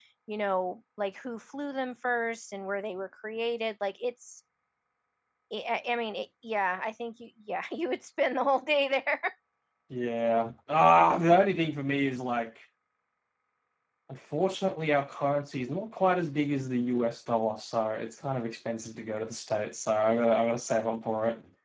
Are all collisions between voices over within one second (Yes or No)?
Yes